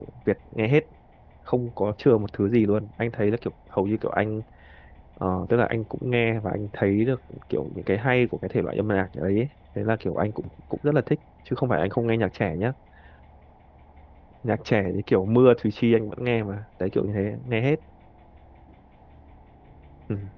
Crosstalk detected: No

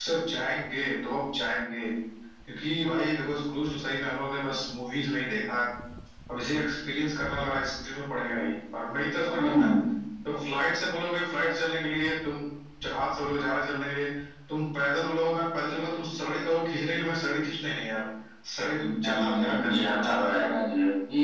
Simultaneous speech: Yes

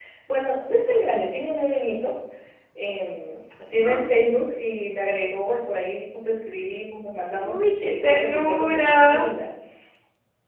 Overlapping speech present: Yes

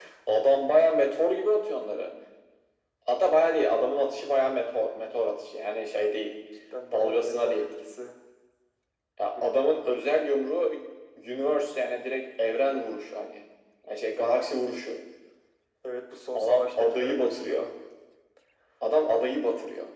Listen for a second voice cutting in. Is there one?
Yes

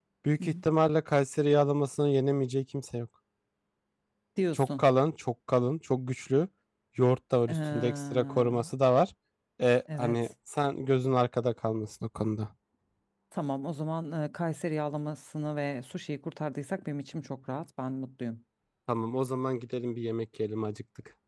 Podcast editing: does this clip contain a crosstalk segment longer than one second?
Yes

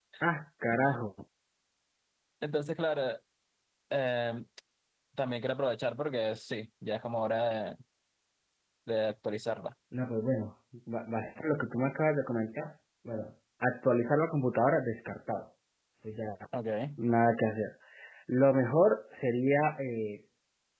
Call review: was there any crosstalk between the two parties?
No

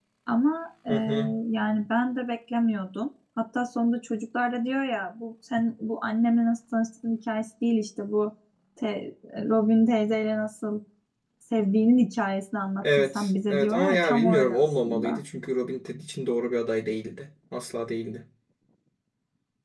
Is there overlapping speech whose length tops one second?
Yes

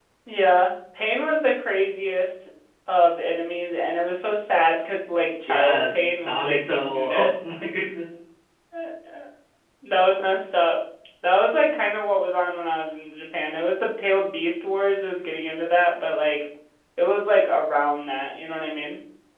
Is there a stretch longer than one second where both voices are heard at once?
Yes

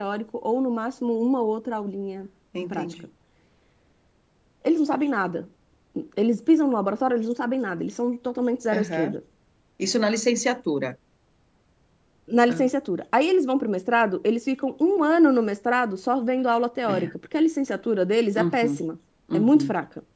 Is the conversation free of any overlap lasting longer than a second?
Yes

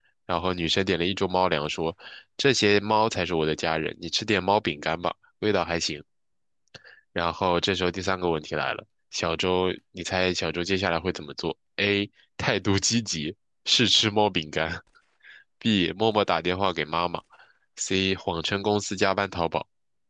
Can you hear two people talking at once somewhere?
No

